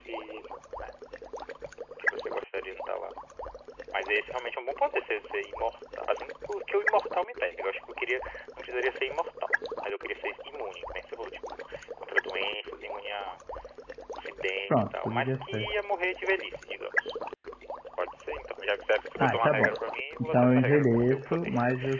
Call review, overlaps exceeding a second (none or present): present